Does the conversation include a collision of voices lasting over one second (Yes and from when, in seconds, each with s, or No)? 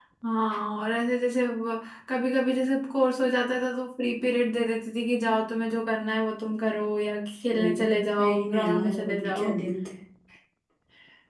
Yes, from 7.5 s